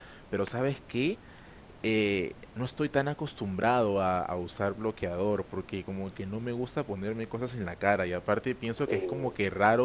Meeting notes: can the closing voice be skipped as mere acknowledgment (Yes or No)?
Yes